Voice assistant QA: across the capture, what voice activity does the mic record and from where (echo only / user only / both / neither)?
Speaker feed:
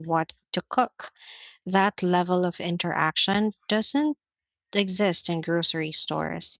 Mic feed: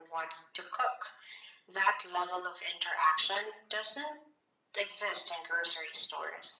echo only